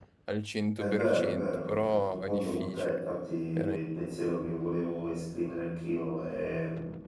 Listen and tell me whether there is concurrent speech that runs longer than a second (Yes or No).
Yes